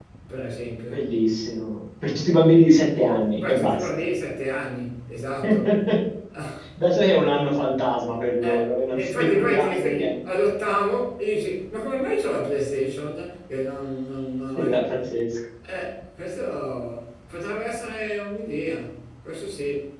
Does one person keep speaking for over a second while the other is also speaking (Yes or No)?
Yes